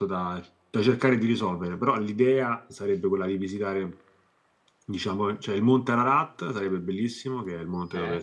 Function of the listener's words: listening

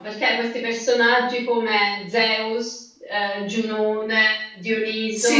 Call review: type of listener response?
listening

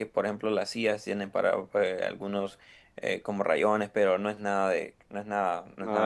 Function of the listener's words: taking over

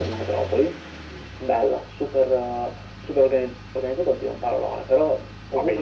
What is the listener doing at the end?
listening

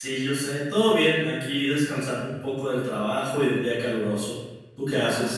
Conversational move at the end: taking over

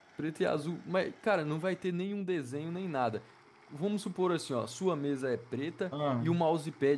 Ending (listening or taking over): listening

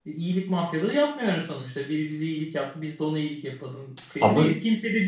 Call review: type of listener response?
listening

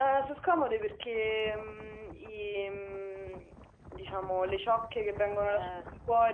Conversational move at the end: listening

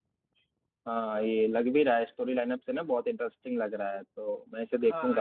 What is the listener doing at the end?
taking over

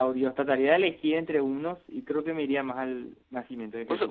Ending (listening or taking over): taking over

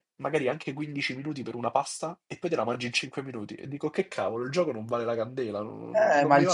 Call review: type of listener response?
taking over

